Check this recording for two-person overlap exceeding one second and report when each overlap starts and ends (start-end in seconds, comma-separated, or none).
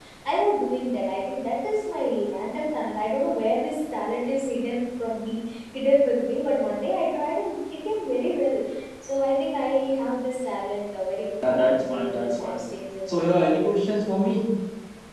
11.4-12.7